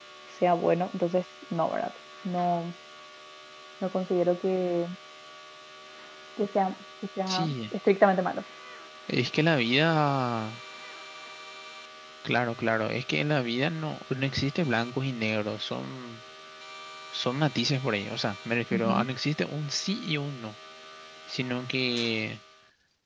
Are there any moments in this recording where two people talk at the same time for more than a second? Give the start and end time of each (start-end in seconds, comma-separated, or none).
none